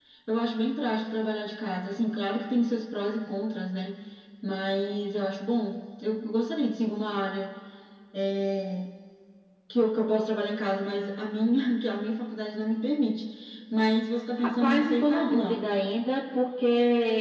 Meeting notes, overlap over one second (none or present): present